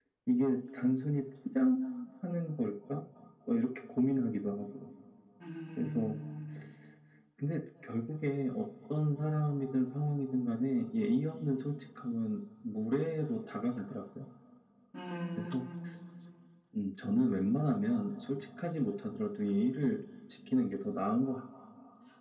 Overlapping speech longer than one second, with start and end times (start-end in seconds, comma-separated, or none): none